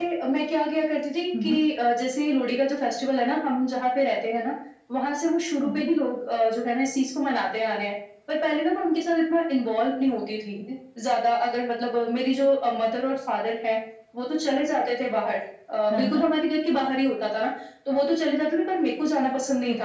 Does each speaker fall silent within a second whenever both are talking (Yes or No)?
Yes